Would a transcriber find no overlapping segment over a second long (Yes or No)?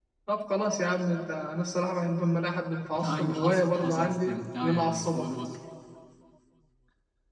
No